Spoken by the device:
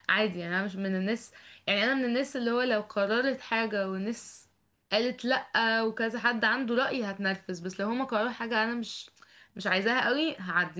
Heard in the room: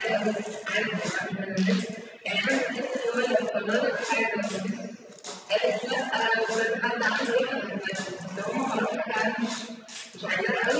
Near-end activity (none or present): none